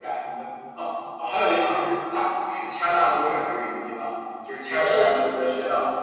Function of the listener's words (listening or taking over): listening